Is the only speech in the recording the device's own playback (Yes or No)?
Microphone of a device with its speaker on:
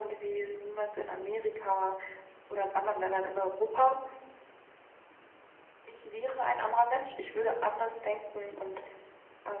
Yes